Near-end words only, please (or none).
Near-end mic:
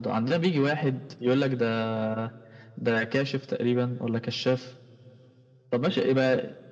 none